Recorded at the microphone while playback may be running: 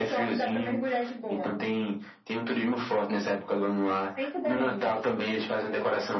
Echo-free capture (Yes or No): No